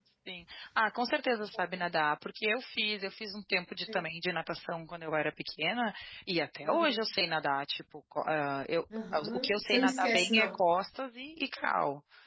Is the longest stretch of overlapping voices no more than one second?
No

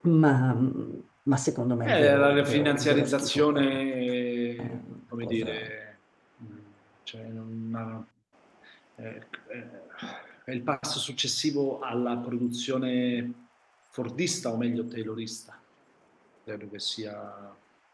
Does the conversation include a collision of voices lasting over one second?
Yes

